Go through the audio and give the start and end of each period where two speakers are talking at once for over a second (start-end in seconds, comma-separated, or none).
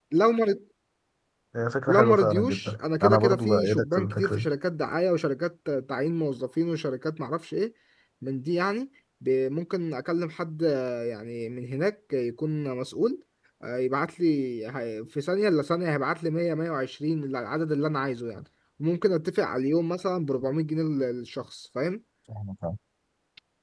1.9-4.5